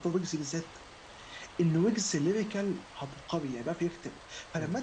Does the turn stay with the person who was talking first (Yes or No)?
Yes